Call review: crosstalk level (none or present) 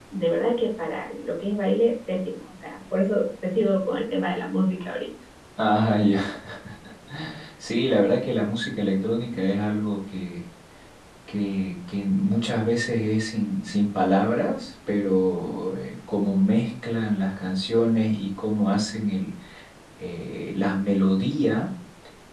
none